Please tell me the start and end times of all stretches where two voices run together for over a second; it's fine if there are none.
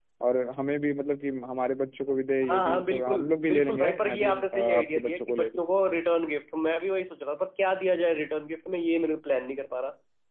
2.4-5.5

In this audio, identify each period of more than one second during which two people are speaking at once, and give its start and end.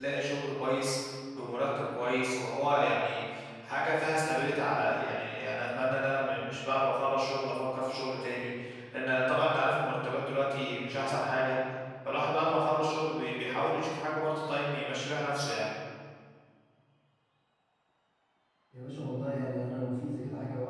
none

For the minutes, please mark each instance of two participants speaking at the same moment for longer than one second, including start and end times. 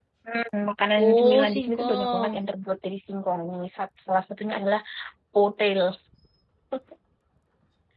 1.0-2.4

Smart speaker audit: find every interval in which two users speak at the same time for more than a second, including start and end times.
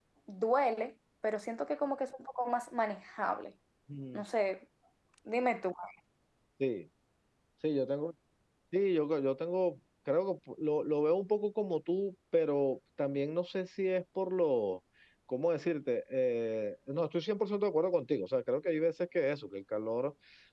none

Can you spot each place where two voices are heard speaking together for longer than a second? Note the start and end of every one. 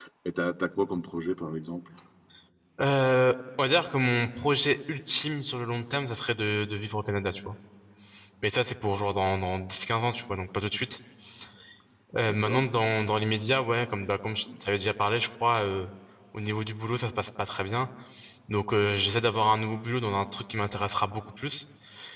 none

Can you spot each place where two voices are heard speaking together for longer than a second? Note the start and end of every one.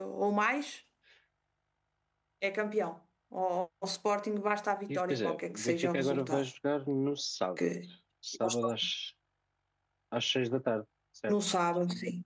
4.9-6.5

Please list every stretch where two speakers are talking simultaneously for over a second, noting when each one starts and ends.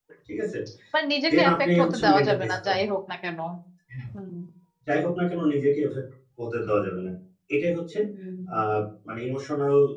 1.3-2.7

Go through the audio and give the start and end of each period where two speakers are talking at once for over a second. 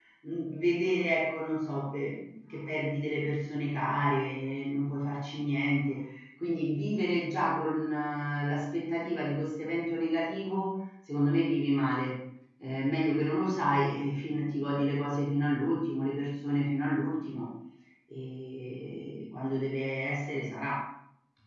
none

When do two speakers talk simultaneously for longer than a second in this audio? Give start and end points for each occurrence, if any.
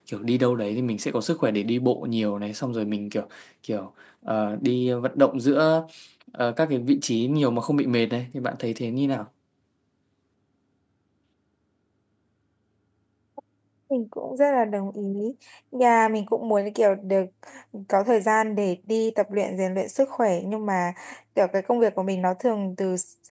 none

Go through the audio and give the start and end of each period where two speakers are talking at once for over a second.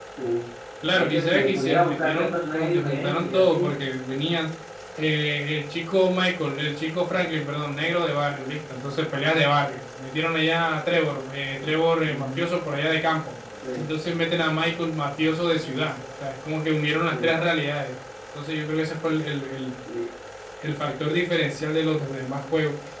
0.9-3.8

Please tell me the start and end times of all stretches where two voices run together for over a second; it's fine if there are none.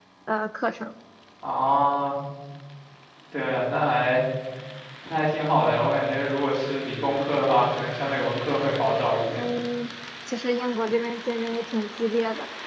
none

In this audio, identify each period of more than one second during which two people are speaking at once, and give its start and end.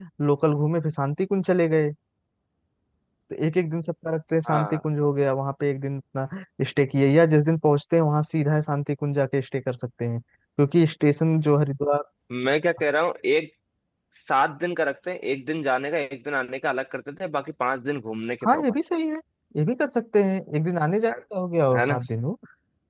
none

